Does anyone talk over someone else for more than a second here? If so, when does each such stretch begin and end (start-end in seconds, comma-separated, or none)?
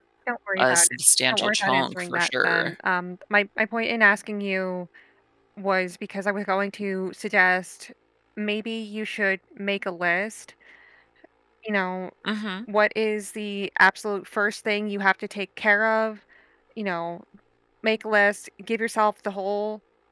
1.3-2.7